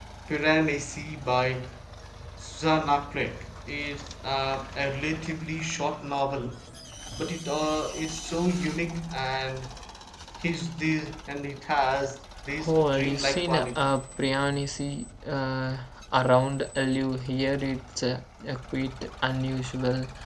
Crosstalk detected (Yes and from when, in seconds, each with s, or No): Yes, from 12.5 s